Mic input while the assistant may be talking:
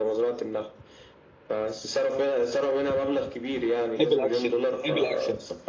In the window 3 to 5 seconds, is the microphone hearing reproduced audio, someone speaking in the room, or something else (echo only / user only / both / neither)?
both